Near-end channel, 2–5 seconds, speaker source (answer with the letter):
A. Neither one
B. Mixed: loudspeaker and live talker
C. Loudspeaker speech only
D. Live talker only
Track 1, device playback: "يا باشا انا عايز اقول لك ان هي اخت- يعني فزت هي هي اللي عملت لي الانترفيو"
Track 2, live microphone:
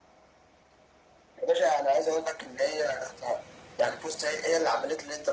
C